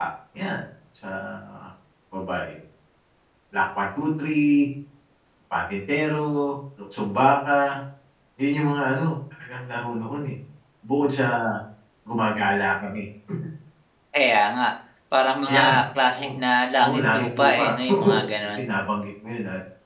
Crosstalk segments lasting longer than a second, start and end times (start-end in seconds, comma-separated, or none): 16.8-18.6